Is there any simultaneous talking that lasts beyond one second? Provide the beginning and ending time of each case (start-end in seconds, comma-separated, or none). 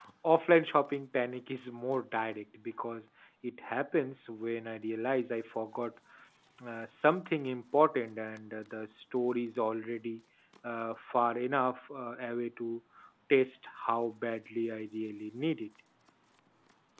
none